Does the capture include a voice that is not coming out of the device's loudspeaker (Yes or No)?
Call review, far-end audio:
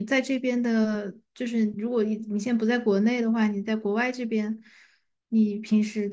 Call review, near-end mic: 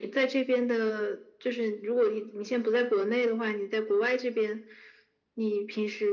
No